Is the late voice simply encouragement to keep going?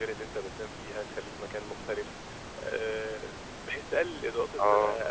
Yes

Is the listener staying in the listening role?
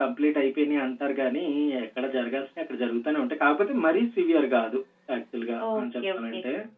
No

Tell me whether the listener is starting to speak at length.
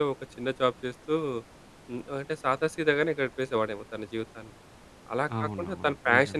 No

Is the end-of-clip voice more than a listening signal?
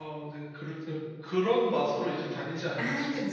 Yes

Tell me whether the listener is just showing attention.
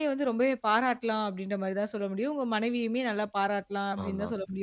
Yes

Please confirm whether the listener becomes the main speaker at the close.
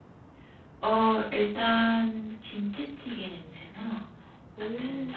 No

